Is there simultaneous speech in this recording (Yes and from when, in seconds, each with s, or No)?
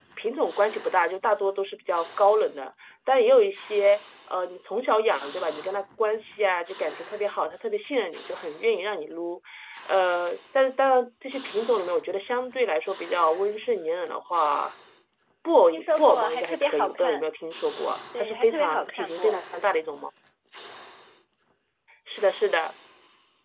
Yes, from 15.7 s